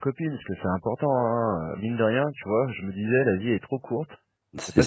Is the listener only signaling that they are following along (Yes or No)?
Yes